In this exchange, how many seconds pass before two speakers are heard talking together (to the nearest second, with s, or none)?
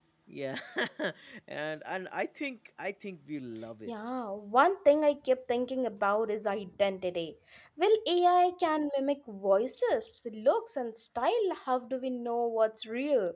none